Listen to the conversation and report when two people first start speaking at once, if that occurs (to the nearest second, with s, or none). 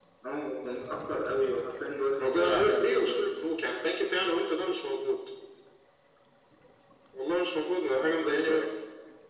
2 s